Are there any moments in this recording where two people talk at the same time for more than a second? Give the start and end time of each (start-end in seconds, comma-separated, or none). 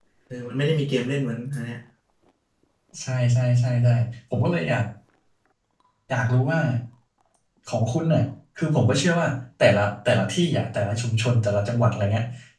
none